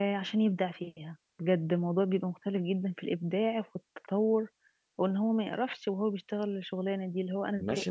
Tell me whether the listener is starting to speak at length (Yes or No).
Yes